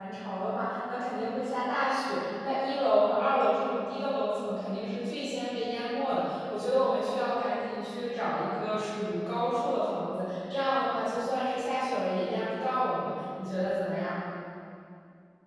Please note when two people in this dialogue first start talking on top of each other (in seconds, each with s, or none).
none